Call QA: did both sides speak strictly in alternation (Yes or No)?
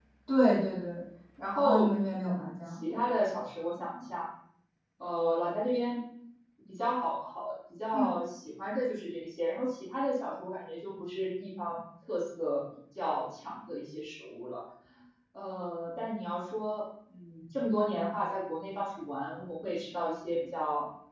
No